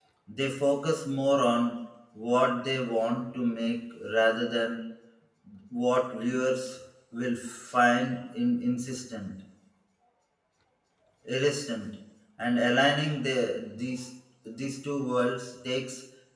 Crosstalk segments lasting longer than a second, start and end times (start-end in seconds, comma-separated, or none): none